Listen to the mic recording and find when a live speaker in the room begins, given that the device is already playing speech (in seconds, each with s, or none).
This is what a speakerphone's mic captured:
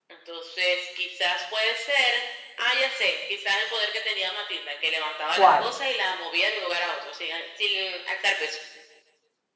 5.3 s